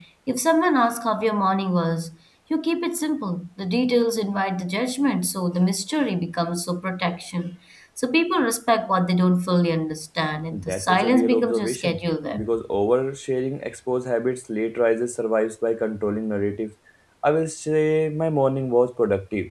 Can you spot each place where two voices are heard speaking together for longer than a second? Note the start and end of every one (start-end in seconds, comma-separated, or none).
10.5-12.0